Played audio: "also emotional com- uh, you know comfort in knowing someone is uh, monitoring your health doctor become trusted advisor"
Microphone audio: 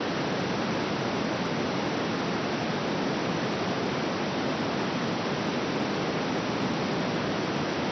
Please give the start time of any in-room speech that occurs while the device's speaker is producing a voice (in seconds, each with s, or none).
none